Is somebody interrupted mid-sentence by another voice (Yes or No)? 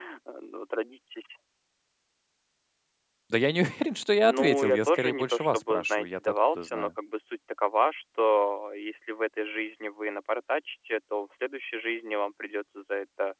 Yes